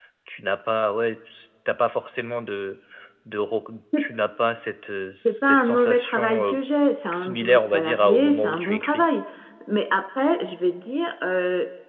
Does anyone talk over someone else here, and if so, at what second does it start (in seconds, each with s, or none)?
5.2 s